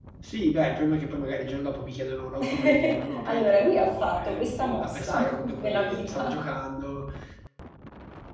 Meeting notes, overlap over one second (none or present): present